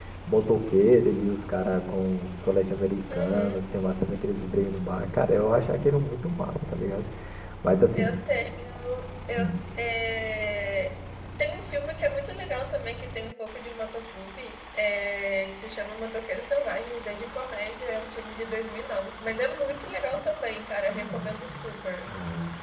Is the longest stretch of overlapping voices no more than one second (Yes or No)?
Yes